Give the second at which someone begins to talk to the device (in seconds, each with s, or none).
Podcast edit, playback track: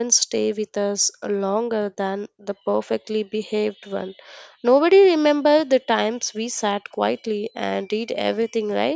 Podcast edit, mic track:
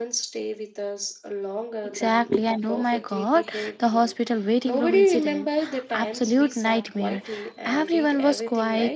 1.8 s